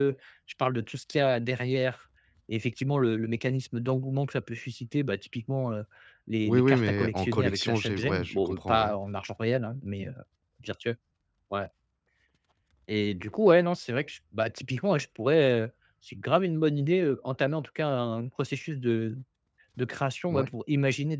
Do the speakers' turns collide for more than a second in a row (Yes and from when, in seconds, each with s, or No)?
Yes, from 6.4 s